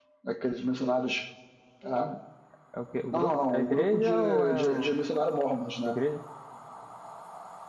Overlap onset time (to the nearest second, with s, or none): 3 s